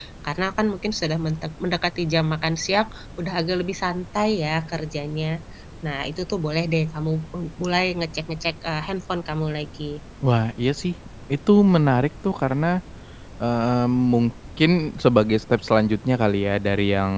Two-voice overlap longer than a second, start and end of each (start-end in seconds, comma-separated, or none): none